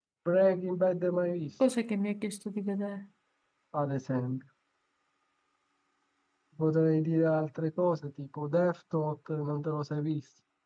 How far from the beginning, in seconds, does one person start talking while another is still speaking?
none

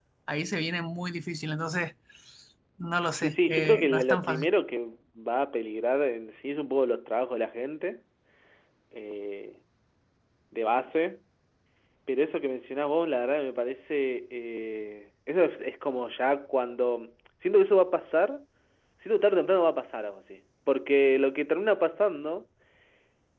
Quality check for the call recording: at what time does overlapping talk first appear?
3 s

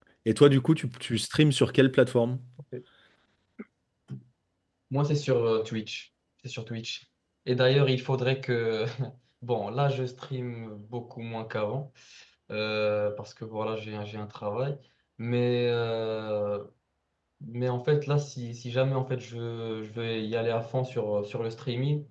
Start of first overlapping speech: none

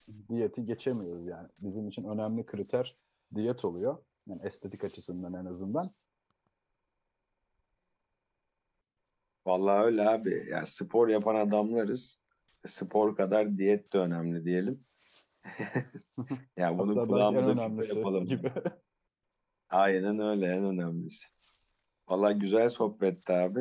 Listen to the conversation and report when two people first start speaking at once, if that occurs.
17 s

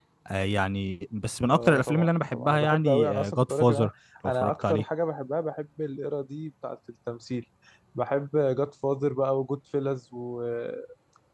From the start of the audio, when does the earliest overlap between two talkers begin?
1 s

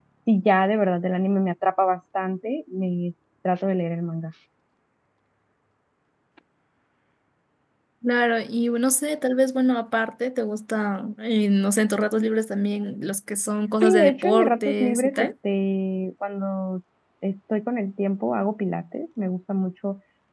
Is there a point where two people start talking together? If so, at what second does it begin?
14 s

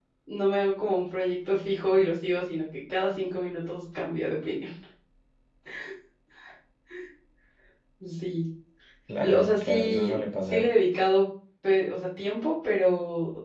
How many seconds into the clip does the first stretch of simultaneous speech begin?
9 s

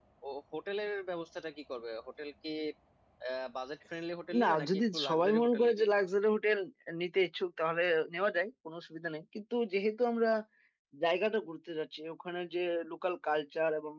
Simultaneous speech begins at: 4 s

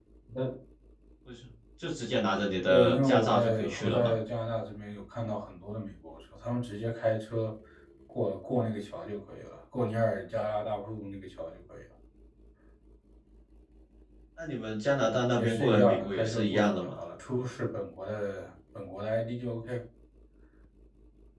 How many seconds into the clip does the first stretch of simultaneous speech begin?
3 s

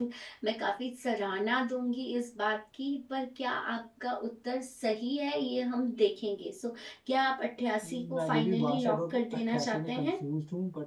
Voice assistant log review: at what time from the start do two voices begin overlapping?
8 s

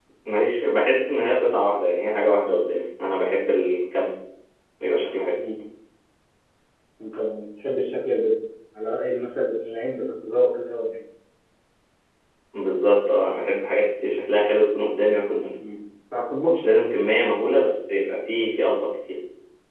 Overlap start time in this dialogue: none

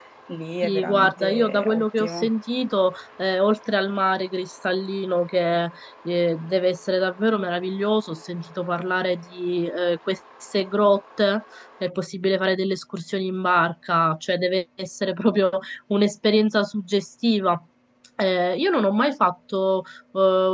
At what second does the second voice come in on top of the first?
1 s

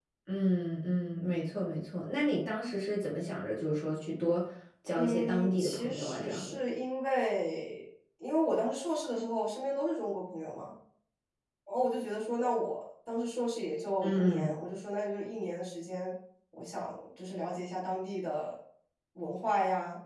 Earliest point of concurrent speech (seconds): 5 s

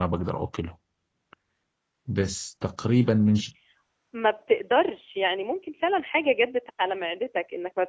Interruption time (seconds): none

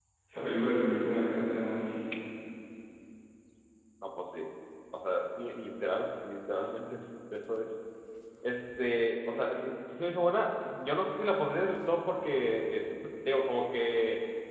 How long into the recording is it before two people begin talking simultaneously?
none

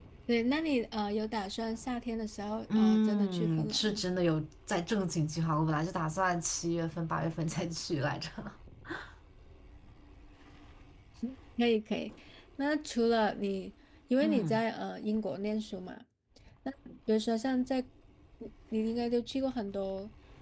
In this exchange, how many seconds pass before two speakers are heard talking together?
3 s

